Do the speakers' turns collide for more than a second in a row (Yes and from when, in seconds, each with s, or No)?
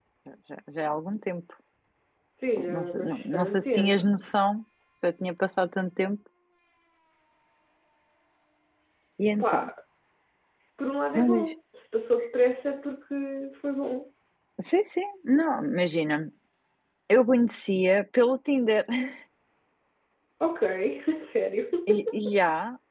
Yes, from 2.6 s